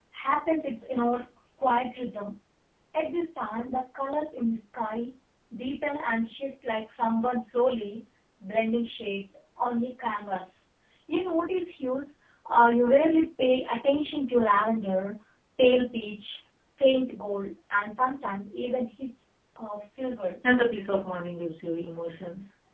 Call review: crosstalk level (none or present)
none